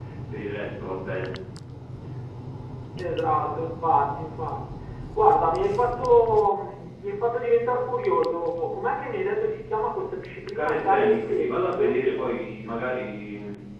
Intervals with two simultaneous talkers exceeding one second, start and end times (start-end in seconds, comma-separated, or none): 10.6-11.9